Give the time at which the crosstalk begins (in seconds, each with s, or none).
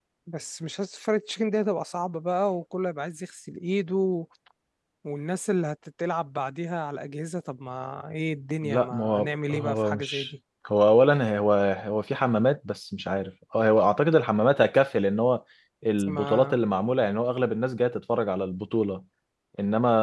8.6 s